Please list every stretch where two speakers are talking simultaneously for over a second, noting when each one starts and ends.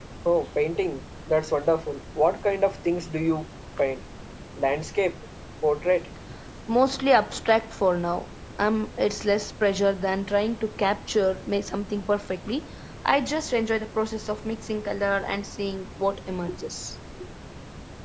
none

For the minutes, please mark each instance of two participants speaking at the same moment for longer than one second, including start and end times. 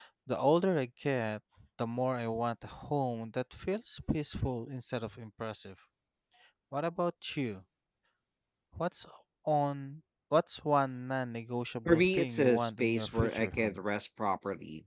11.8-13.8

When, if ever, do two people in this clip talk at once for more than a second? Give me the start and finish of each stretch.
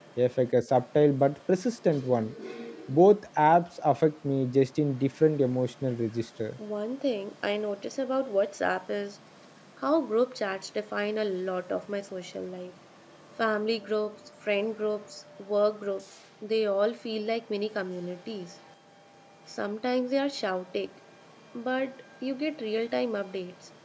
none

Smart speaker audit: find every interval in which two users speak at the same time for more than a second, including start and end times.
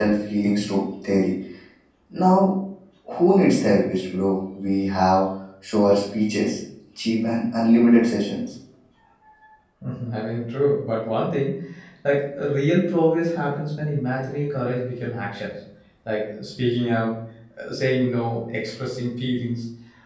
none

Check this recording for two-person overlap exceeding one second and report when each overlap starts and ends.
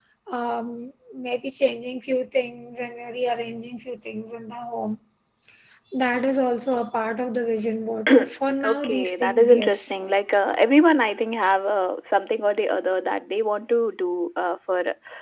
8.6-9.9

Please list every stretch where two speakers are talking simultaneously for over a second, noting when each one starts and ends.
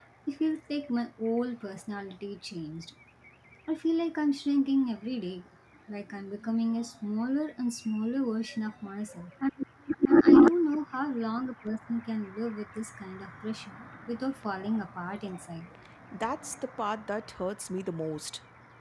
none

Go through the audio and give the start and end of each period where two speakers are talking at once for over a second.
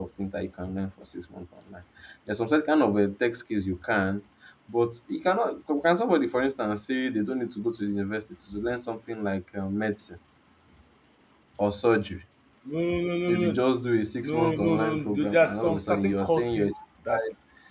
14.2-16.7

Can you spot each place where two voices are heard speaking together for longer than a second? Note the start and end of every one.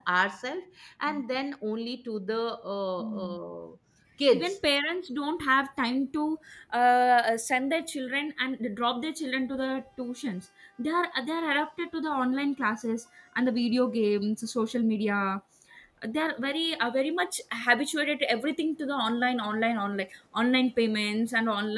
none

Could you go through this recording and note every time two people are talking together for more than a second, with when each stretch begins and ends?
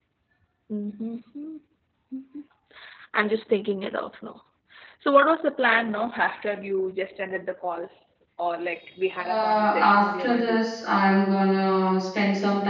9.2-10.6

